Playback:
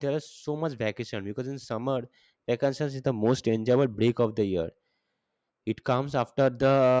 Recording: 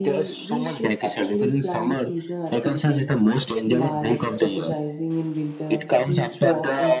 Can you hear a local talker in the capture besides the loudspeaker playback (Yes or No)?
Yes